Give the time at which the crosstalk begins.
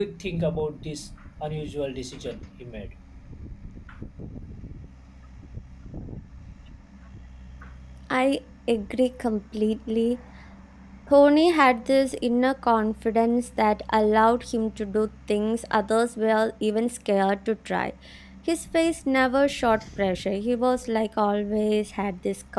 none

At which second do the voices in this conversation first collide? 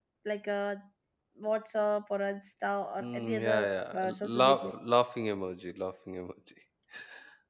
3.0 s

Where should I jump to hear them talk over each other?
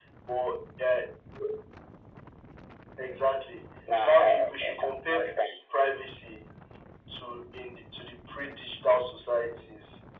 3.9 s

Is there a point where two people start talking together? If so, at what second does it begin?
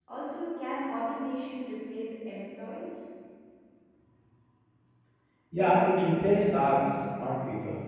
none

